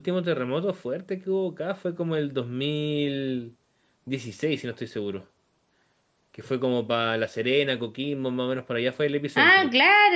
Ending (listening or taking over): taking over